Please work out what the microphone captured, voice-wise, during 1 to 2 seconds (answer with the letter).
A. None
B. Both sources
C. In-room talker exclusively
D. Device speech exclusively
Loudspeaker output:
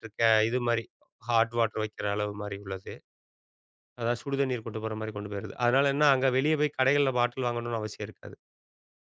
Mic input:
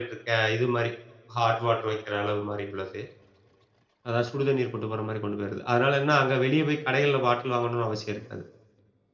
D